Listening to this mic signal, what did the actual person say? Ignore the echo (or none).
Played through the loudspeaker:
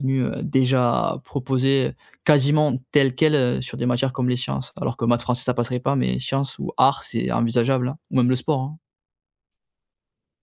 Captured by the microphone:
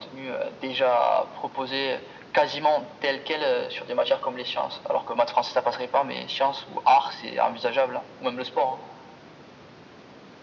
none